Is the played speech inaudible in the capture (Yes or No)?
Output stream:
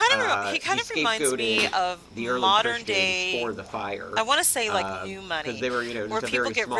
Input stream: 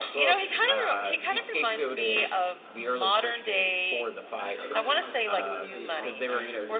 No